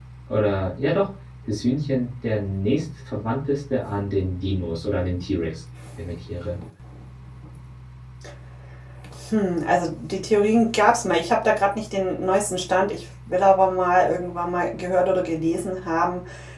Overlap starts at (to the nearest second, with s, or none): none